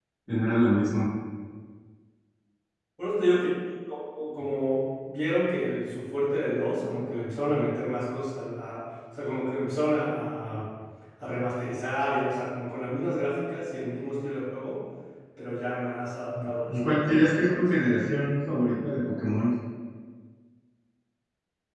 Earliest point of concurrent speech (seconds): 16.3 s

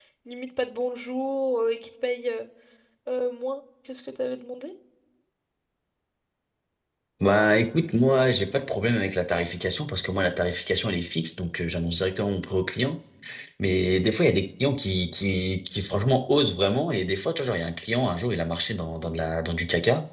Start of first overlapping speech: none

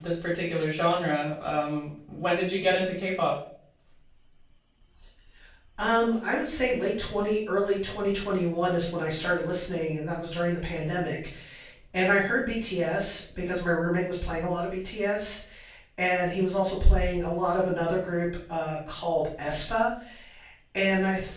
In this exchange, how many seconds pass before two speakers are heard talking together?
none

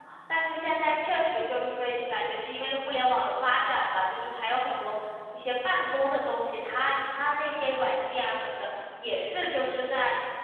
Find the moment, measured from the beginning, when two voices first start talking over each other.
none

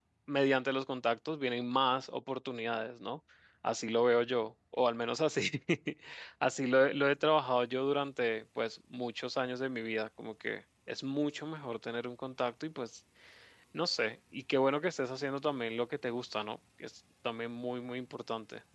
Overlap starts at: none

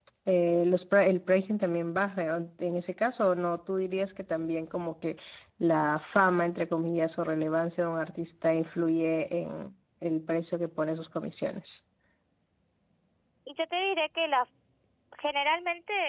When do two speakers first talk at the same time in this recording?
none

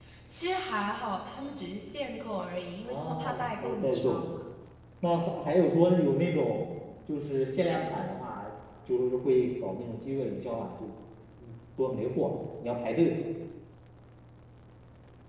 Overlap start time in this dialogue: 2.9 s

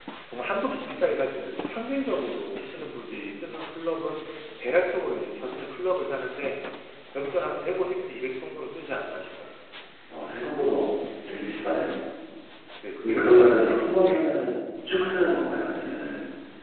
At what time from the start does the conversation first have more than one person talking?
13.0 s

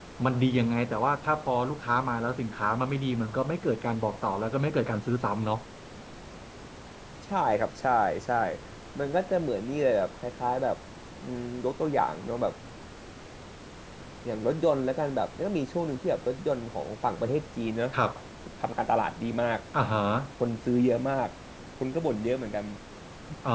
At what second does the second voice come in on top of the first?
none

